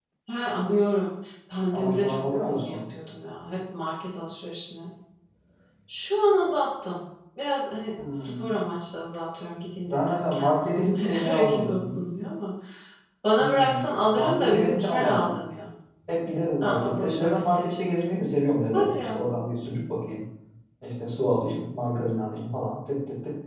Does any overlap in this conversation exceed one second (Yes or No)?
Yes